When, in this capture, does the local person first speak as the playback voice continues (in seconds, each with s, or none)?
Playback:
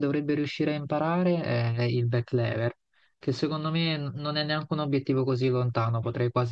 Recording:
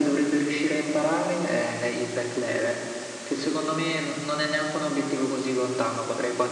none